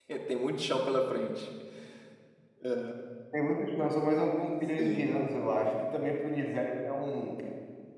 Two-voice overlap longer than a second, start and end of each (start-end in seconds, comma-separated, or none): none